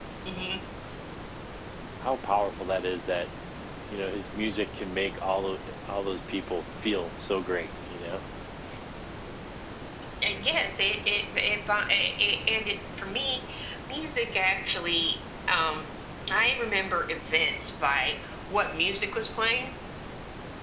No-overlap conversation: Yes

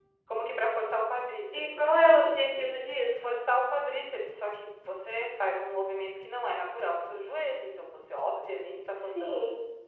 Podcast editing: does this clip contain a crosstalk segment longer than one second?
No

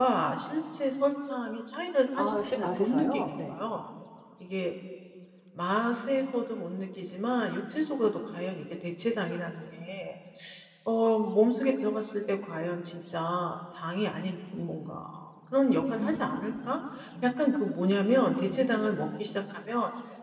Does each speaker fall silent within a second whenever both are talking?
No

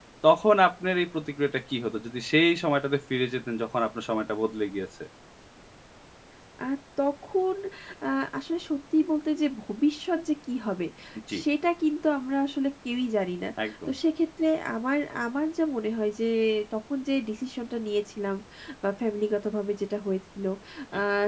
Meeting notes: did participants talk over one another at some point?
No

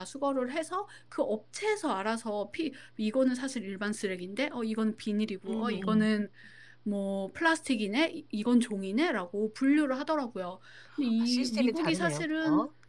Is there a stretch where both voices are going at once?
Yes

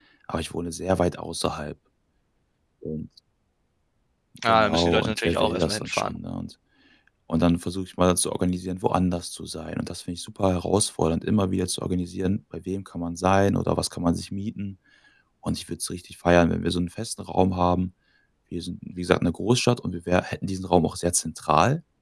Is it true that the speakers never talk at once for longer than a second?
No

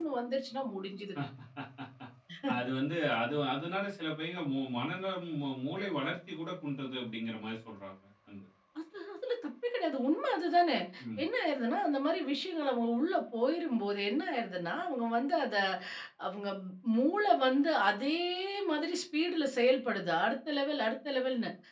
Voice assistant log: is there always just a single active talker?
Yes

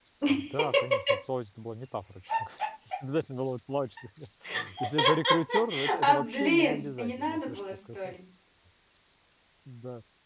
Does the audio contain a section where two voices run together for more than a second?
Yes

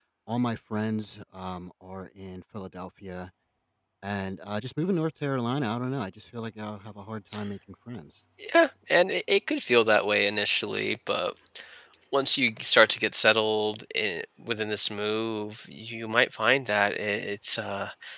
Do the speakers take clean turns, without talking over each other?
Yes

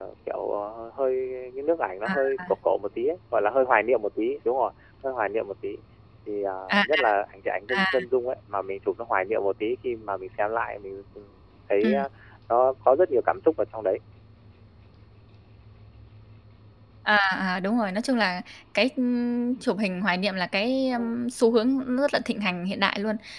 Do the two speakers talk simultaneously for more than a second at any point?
No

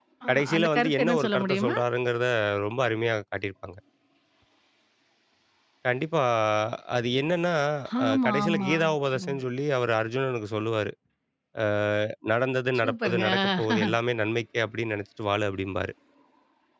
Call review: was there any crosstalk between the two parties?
Yes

